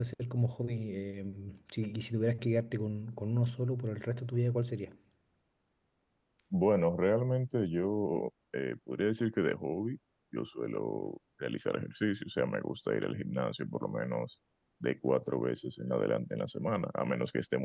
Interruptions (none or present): none